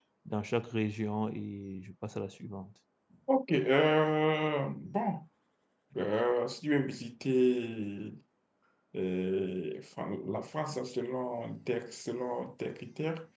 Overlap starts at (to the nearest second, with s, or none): none